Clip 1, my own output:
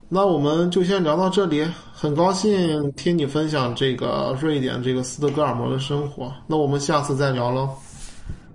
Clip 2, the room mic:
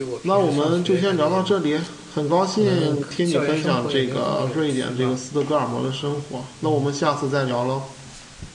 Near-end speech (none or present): present